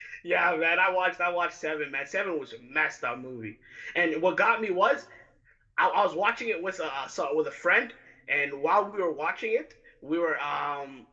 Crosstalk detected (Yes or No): No